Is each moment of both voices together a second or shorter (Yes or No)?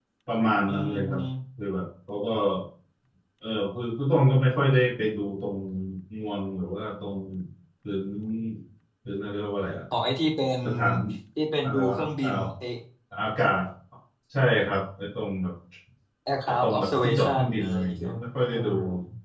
No